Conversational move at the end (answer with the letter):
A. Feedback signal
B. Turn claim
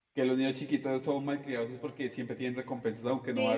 B